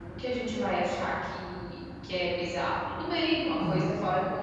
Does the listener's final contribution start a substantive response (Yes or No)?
No